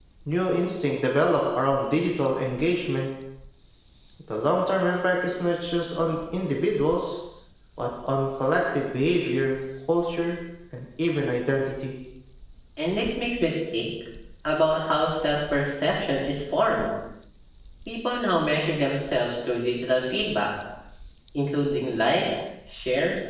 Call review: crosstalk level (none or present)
none